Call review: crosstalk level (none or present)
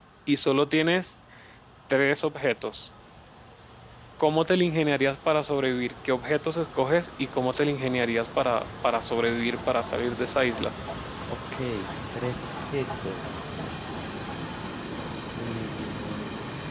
none